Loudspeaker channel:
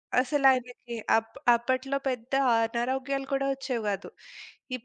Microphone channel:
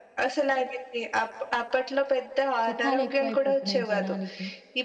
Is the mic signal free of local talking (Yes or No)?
No